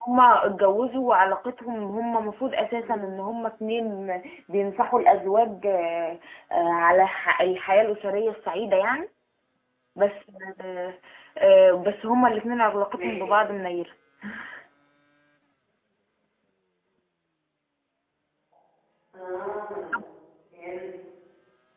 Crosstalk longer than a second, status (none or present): none